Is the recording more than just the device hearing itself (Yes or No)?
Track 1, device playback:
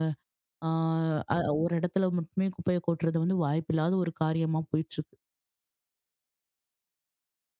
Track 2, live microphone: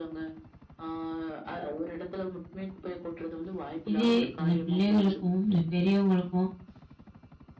Yes